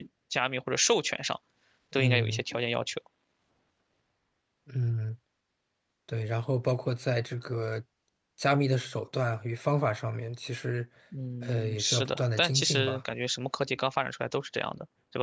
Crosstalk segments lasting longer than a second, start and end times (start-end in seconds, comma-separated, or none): 11.4-13.0